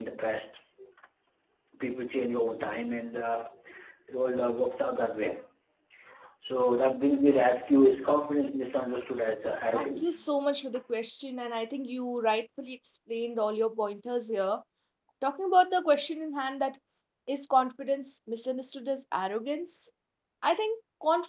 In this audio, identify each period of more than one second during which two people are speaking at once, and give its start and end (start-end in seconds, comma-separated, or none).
none